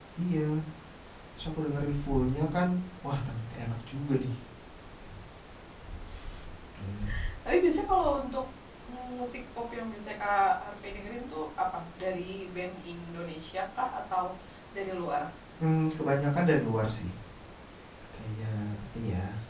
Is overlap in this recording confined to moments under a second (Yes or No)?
Yes